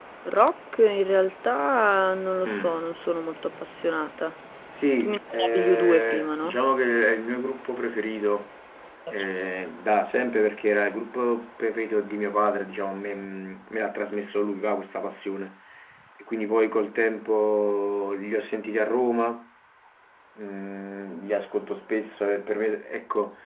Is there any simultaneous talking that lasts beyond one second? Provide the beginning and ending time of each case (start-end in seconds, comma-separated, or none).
5.0-6.6